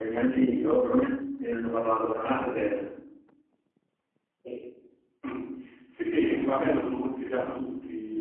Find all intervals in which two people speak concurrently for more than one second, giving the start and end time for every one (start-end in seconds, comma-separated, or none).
none